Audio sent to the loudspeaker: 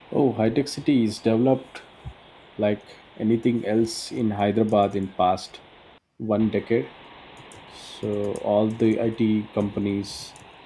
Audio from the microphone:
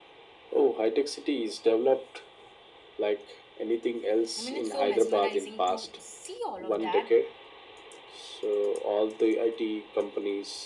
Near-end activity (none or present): present